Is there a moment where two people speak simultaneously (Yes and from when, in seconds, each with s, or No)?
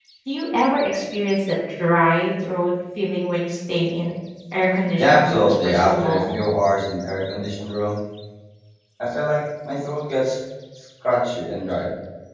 Yes, from 5.0 s